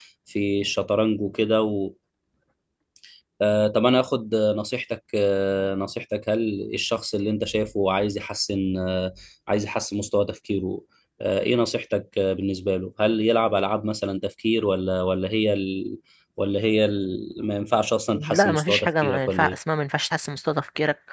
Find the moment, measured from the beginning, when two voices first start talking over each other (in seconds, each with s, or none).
18.1 s